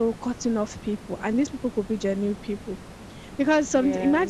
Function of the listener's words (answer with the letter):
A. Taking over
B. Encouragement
B